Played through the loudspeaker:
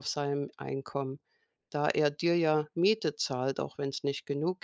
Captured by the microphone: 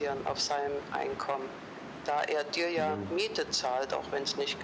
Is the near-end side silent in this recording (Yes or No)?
No